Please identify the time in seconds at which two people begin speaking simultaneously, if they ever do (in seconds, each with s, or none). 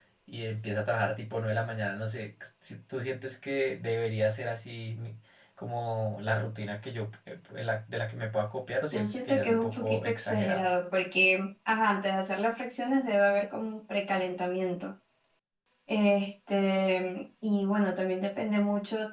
8.9 s